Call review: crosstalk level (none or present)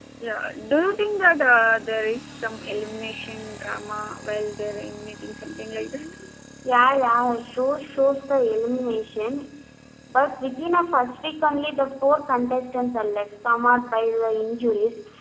none